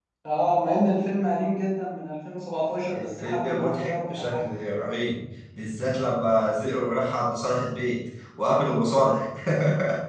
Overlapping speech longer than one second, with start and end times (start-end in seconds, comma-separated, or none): 2.9-4.4